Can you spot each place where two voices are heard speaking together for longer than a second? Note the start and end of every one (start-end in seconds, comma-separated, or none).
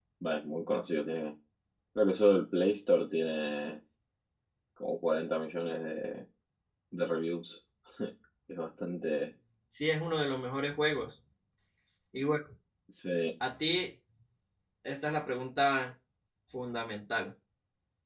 none